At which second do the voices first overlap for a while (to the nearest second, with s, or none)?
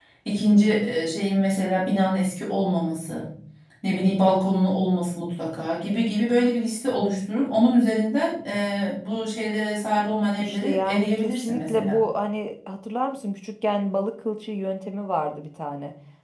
10 s